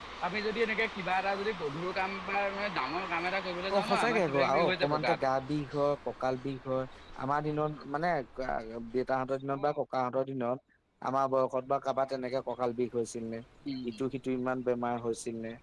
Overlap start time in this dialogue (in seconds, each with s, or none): 3.7 s